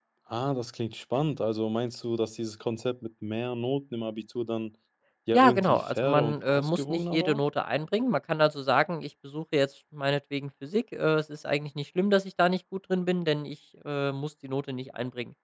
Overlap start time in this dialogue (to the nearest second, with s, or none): 5 s